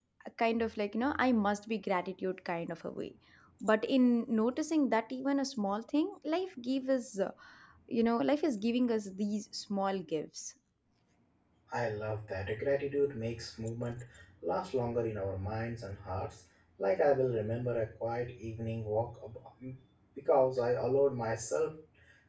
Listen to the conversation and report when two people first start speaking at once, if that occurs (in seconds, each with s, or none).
none